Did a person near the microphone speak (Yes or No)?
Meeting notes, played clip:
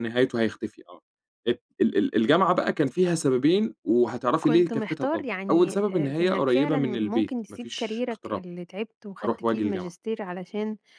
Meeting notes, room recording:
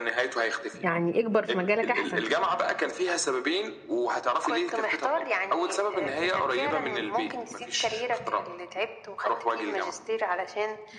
Yes